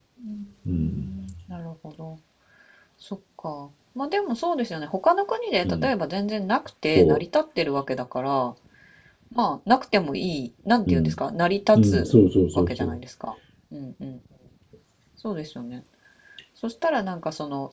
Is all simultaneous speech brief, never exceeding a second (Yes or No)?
Yes